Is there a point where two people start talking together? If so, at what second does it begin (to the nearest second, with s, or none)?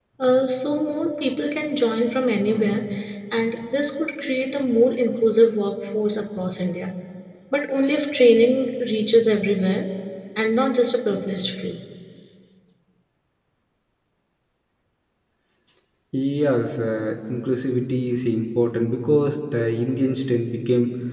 none